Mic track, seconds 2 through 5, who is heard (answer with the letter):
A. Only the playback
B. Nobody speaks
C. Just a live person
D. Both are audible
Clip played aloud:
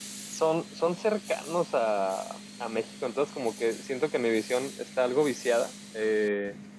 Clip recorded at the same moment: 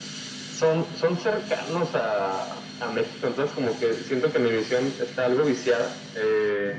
A